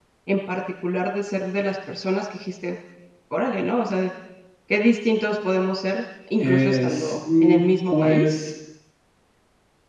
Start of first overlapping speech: 6.4 s

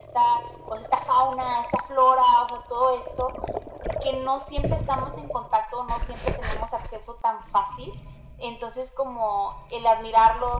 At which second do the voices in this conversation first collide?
none

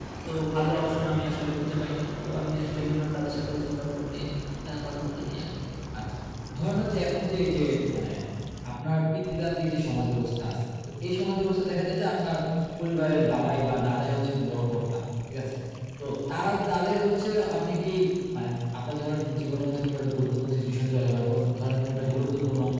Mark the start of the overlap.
none

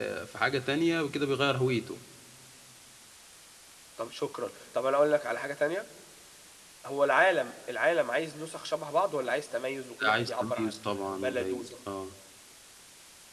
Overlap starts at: 10.0 s

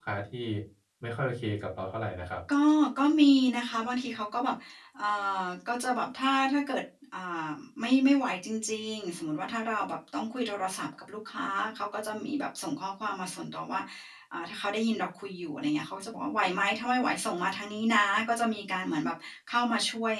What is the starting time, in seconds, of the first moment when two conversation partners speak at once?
none

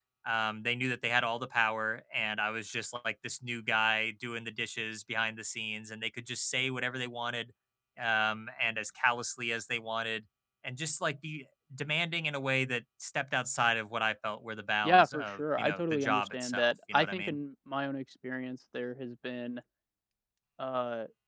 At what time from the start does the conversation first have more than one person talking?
14.8 s

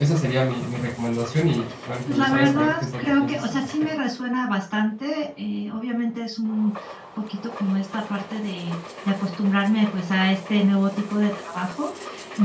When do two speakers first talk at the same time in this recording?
2.1 s

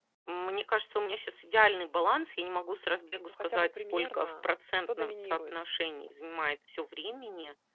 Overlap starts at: 3.3 s

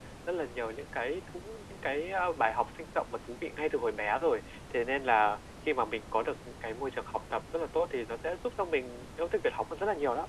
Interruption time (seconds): none

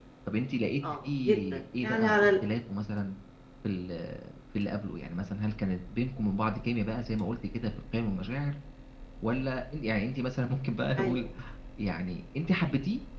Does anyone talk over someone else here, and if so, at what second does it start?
1.0 s

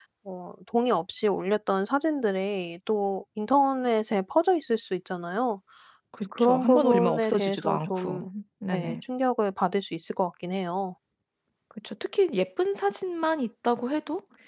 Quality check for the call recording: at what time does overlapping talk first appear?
6.4 s

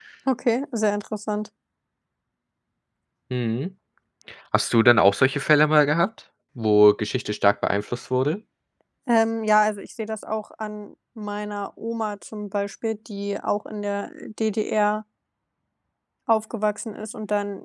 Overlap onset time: none

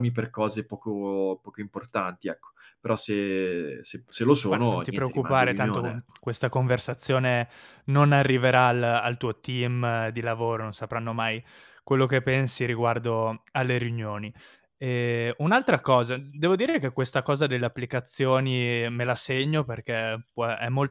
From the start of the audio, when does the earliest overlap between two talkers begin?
4.5 s

